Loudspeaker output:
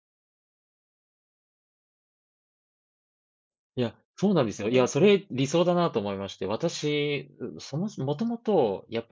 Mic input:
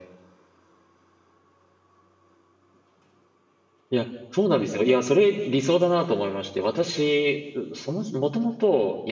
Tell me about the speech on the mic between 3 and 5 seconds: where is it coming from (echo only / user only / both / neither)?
echo only